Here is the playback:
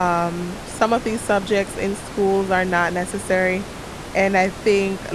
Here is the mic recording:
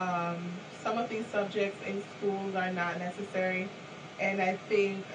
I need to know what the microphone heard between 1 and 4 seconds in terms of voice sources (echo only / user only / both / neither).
echo only